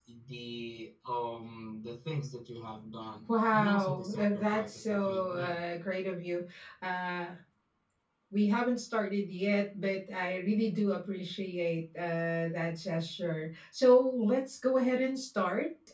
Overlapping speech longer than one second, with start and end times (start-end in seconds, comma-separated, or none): 3.5-5.6